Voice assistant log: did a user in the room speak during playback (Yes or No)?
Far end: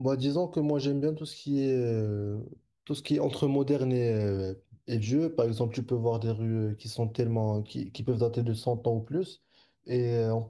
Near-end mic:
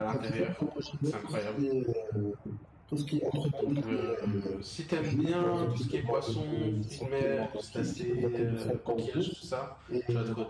Yes